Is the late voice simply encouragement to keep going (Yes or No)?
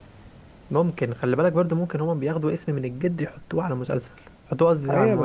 No